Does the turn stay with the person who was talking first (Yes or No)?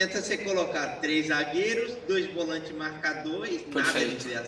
No